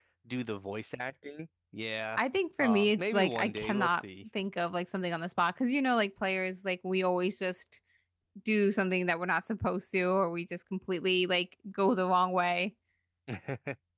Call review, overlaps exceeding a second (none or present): present